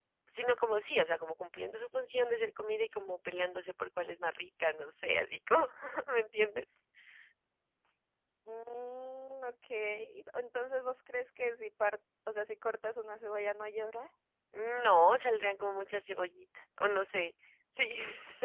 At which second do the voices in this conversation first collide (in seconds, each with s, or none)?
none